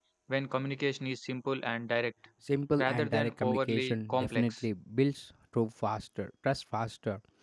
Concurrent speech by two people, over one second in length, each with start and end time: 2.8-4.6

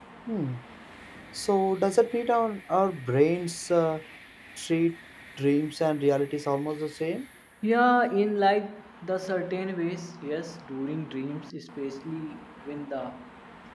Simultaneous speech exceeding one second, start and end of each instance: none

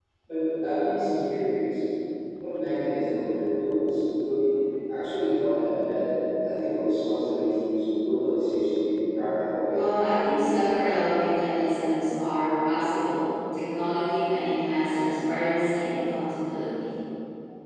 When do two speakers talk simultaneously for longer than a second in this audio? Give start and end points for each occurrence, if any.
none

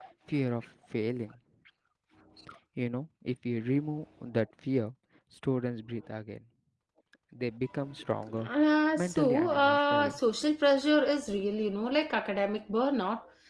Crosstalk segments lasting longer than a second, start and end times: 9.0-10.2

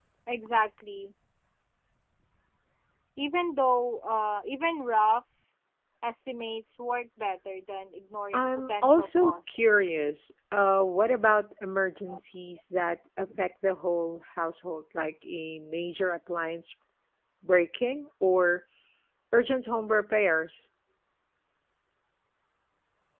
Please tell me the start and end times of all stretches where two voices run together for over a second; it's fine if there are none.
8.3-9.6

